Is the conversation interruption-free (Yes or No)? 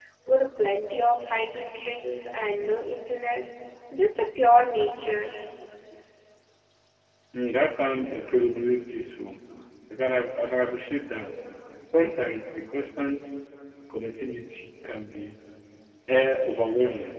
Yes